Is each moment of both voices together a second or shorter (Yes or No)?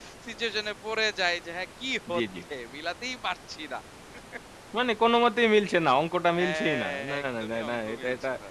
No